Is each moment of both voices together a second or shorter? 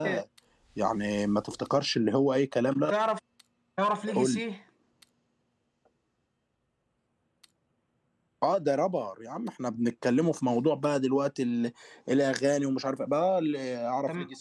Yes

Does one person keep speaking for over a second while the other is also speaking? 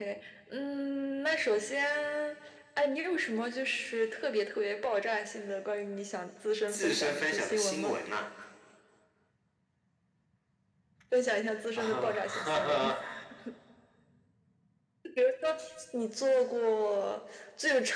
Yes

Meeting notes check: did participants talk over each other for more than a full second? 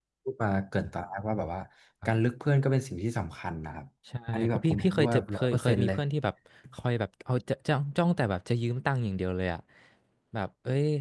Yes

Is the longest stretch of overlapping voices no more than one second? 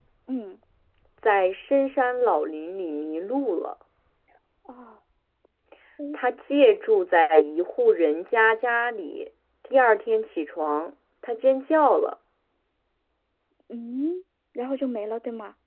Yes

